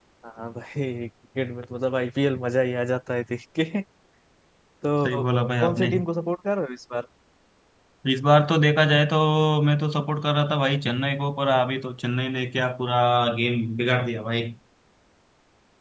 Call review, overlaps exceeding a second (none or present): none